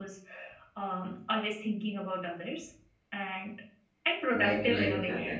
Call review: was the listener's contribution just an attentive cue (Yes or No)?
No